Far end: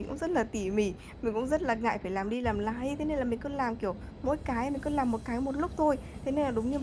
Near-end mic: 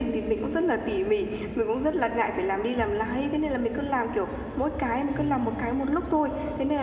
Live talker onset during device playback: 5 s

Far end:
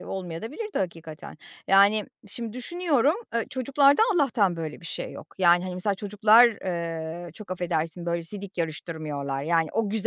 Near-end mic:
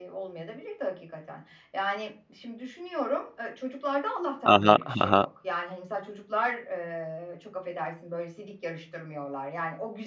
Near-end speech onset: 4 s

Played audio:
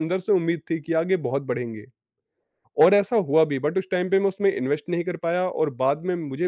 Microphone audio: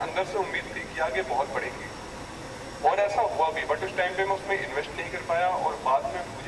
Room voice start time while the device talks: none

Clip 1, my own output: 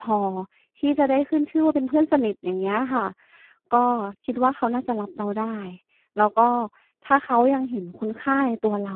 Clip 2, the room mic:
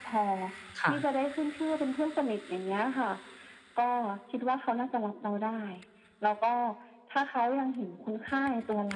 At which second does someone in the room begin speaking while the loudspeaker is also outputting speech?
1 s

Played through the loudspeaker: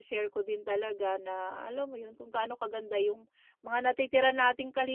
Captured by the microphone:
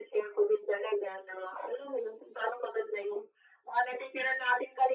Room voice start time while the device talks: none

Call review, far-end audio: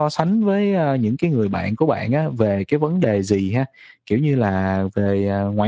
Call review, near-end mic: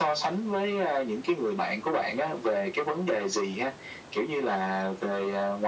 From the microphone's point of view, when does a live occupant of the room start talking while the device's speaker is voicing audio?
none

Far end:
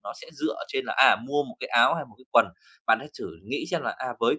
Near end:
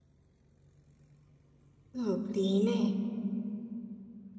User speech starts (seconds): 2 s

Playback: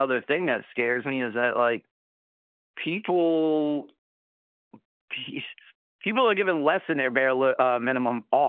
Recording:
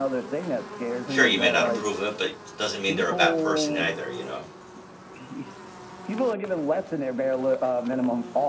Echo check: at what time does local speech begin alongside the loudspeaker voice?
1 s

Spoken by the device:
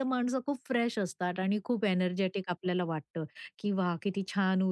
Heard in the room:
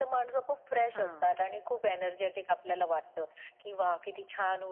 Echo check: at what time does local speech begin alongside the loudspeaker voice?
1 s

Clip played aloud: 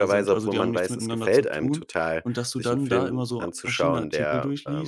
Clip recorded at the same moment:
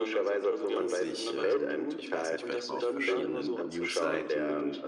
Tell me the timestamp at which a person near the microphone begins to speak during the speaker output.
1 s

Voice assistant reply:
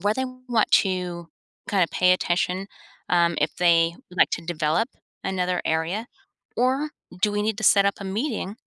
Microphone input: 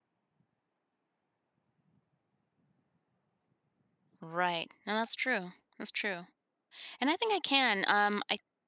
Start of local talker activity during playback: 4 s

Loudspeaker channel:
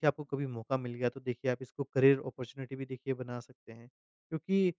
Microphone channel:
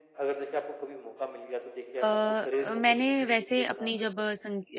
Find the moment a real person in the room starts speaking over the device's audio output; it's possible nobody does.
2 s

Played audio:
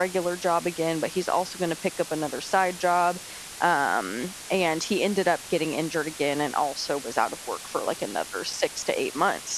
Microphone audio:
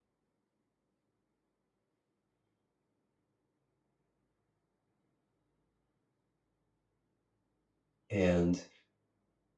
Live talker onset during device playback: 8 s

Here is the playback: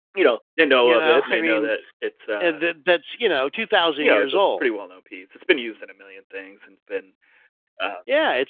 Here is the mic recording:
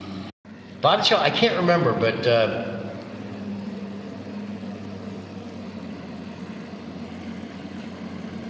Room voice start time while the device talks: 1 s

